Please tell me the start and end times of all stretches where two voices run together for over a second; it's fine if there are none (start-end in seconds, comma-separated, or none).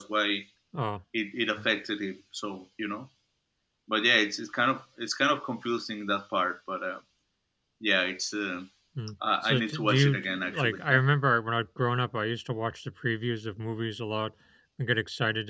9.4-10.8